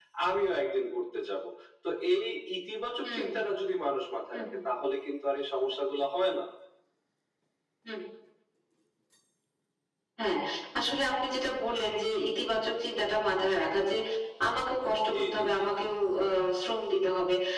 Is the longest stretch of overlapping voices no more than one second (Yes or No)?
Yes